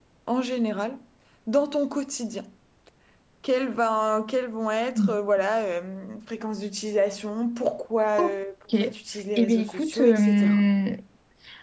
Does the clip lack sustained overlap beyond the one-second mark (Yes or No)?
No